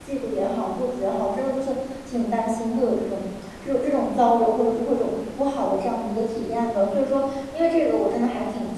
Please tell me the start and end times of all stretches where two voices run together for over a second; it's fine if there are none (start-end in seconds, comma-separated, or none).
none